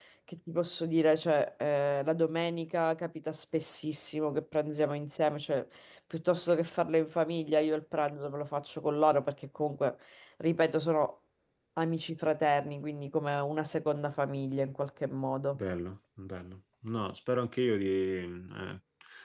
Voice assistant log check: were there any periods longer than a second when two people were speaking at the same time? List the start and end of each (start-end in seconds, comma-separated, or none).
none